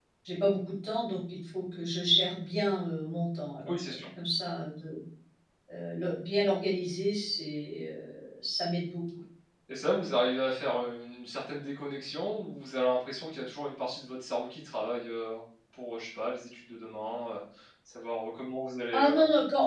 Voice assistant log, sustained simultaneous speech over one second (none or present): none